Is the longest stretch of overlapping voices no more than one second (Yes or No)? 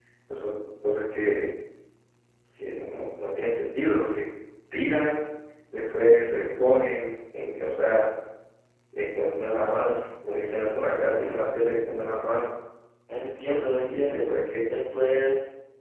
No